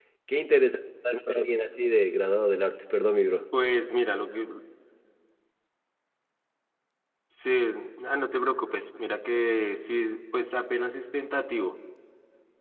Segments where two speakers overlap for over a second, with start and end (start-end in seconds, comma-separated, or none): none